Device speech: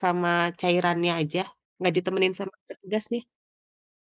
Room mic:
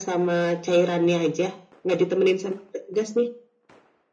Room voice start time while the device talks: none

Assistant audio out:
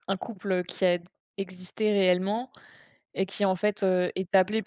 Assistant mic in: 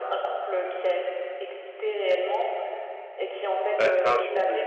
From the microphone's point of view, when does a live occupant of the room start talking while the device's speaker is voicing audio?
3.8 s

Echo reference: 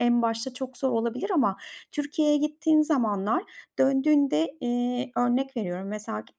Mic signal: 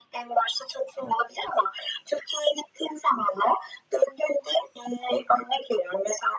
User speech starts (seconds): none

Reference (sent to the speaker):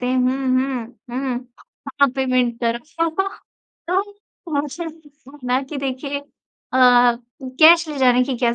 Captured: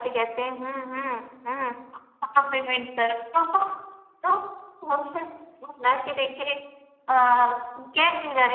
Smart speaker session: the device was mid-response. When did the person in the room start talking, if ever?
none

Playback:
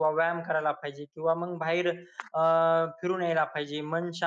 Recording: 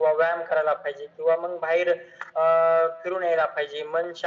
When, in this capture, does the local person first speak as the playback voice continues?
none

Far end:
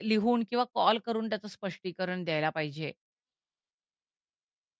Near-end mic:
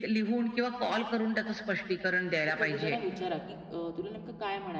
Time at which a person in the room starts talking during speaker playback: 2.5 s

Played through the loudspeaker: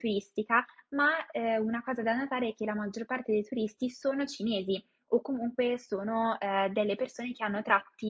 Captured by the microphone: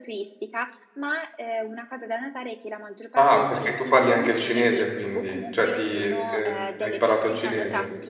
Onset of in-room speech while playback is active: 3.2 s

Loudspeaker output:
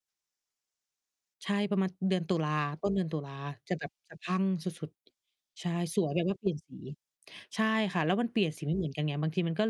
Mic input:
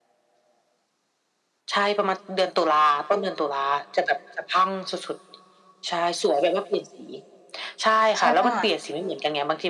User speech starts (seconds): 8.2 s

